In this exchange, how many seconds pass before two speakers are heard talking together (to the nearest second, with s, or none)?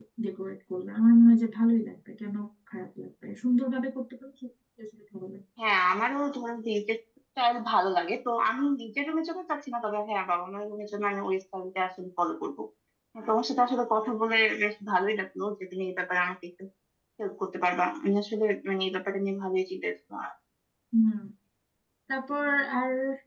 none